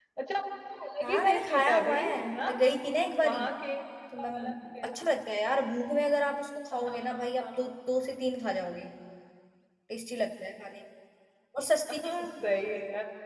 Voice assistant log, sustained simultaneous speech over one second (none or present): present